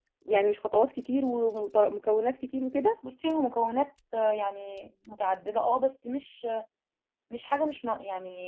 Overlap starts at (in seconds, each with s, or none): none